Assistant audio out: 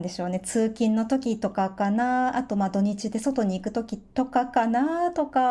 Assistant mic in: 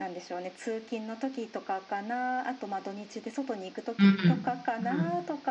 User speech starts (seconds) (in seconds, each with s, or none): 4.0 s